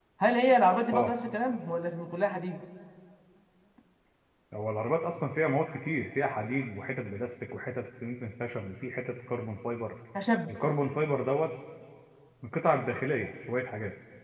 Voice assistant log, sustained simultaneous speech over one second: none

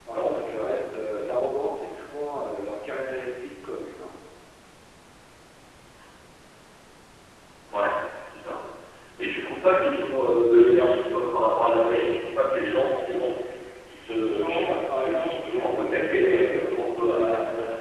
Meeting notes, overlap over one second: present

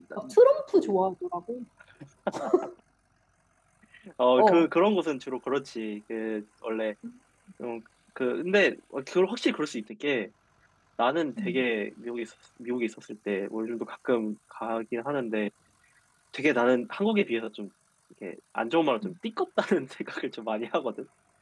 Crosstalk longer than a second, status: none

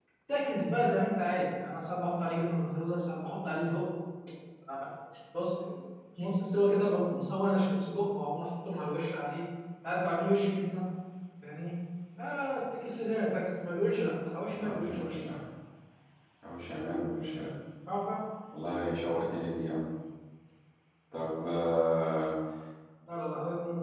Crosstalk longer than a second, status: none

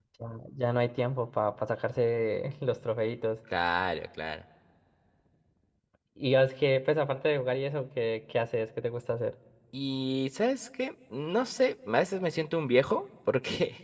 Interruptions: none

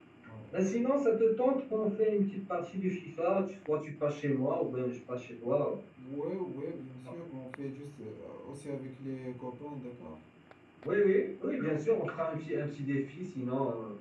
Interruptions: none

